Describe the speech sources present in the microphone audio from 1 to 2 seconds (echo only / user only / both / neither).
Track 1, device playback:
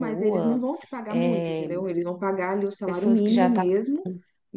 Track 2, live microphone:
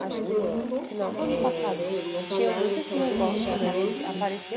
both